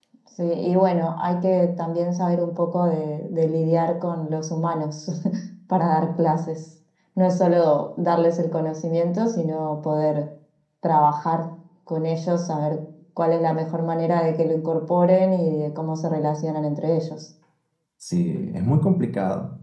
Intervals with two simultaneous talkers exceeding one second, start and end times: none

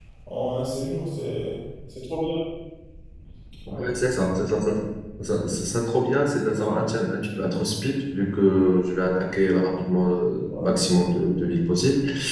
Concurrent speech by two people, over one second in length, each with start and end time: none

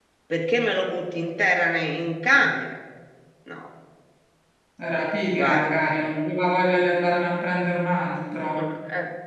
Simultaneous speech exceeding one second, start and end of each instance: none

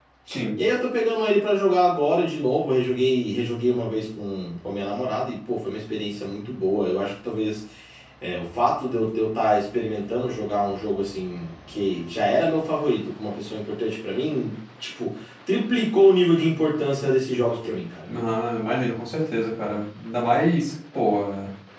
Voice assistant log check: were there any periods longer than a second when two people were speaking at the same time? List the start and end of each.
none

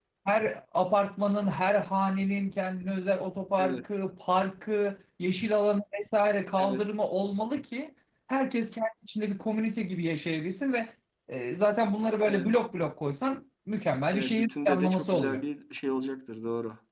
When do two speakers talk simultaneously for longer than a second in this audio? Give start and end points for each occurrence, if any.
14.1-15.4

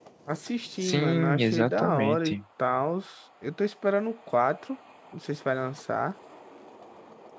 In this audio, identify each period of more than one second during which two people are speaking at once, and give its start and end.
0.8-2.4

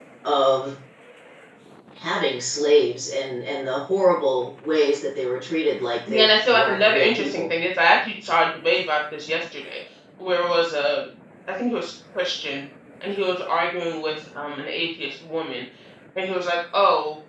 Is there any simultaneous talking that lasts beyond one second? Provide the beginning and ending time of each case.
6.1-7.5

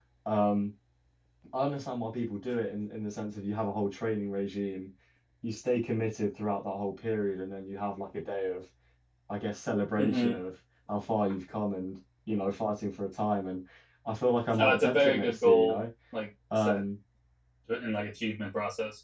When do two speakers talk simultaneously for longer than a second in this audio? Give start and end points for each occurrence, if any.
14.6-15.8

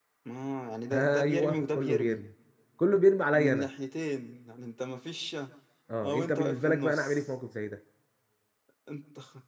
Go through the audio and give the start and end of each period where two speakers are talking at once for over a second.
0.9-2.2, 6.0-7.2

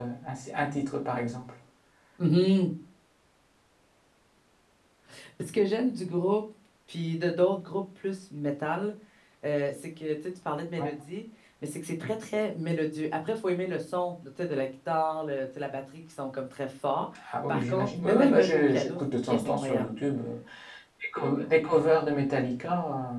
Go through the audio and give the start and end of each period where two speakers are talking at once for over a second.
17.5-19.9

